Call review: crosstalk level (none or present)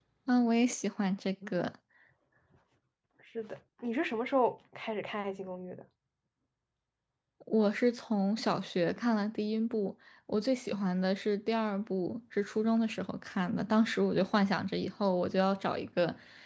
none